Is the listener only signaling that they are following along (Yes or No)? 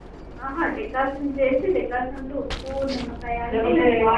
Yes